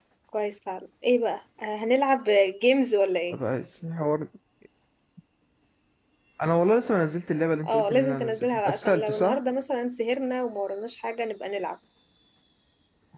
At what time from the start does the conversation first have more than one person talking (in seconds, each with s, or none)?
7.6 s